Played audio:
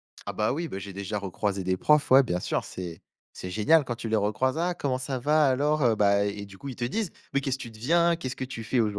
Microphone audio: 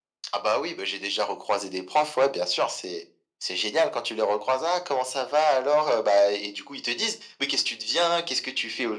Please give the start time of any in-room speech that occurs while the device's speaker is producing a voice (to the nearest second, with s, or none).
none